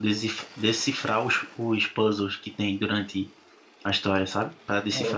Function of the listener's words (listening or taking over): listening